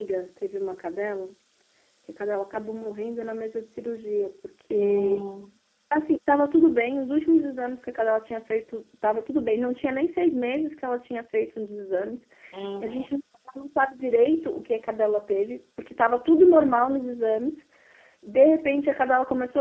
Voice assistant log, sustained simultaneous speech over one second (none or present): none